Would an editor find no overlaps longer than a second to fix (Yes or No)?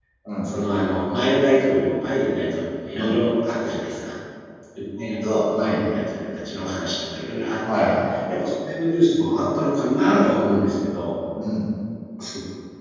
Yes